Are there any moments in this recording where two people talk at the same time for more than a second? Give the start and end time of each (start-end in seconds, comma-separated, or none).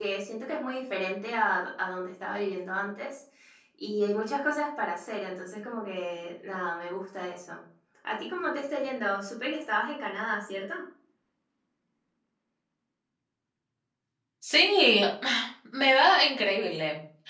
none